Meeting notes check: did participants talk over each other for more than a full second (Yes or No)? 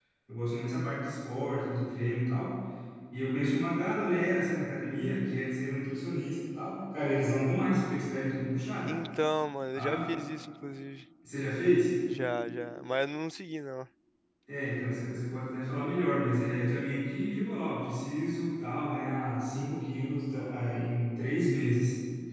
No